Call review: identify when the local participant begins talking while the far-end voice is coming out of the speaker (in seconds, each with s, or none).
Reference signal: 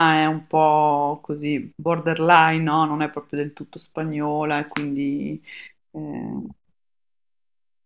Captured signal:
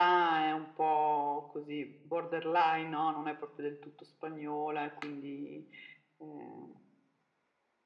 none